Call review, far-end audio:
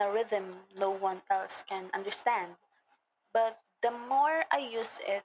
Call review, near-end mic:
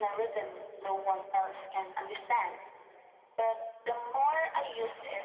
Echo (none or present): present